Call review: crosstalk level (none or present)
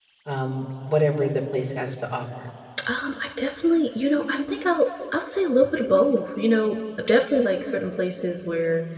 none